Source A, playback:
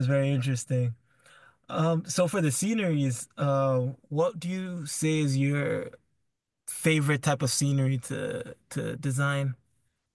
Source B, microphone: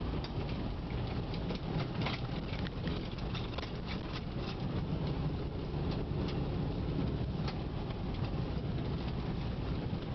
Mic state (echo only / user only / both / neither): neither